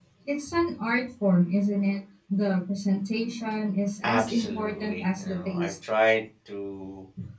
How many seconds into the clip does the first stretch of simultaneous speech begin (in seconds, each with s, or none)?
4.0 s